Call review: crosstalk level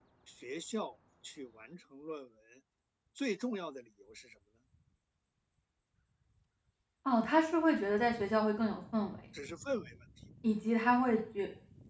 none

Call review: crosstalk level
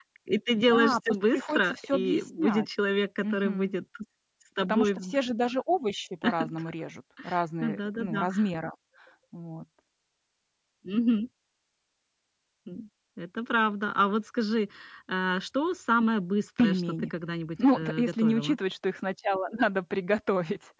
present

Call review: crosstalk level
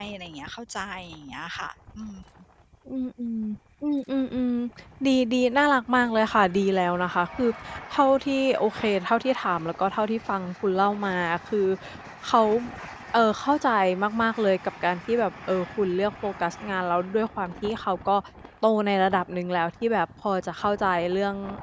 none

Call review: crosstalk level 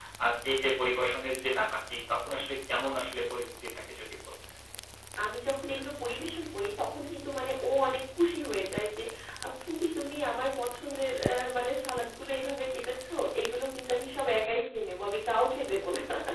none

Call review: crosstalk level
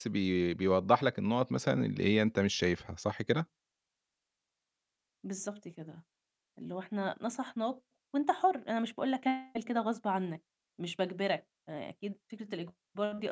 none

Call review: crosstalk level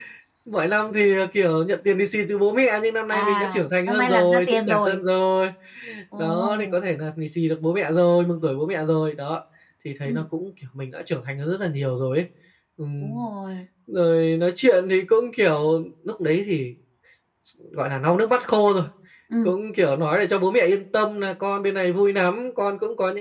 present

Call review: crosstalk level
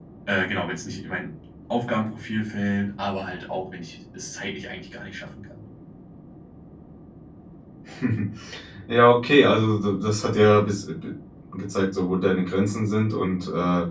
none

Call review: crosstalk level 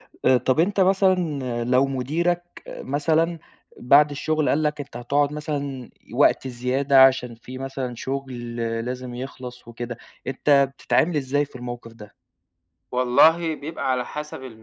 none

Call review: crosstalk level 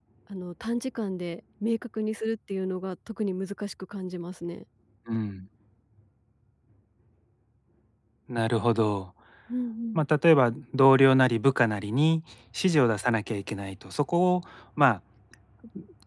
none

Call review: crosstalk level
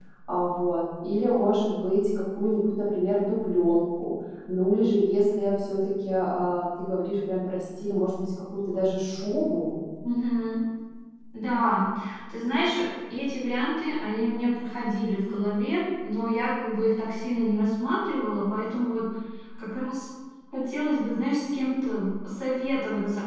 none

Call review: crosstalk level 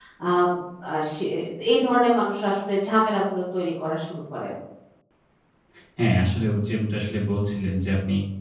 none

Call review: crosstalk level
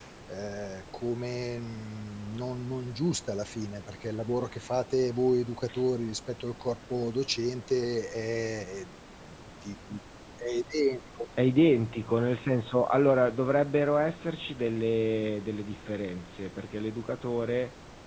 none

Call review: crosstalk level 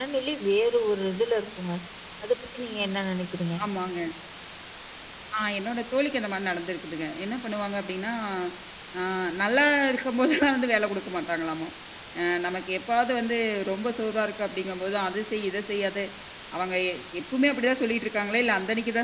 none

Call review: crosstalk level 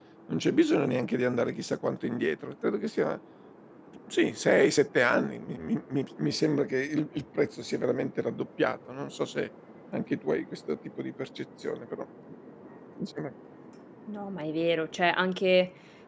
none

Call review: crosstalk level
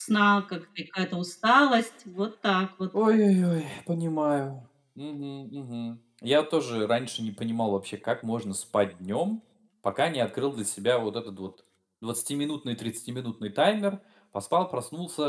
none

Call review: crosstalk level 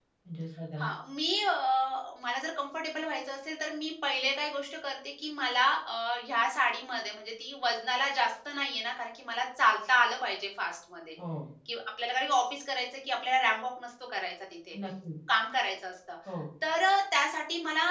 none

